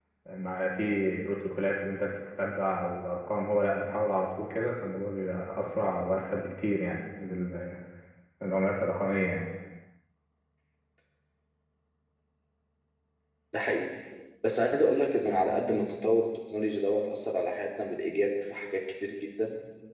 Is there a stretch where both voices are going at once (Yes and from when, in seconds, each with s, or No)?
No